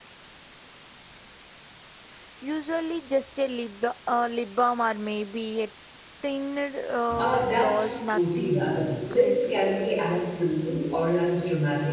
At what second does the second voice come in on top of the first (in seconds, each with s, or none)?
7.1 s